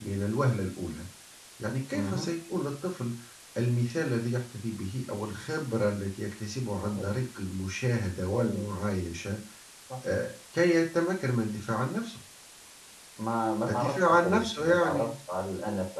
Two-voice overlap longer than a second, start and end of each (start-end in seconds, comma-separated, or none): 13.7-15.1